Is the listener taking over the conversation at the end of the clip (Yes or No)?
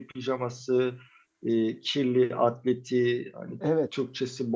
No